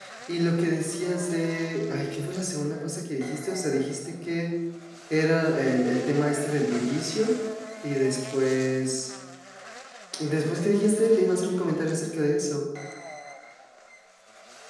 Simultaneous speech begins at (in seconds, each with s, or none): none